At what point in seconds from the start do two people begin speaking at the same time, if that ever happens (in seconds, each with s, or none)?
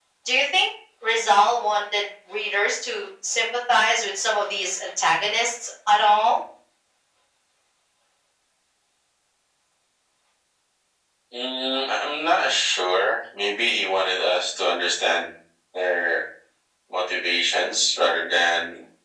none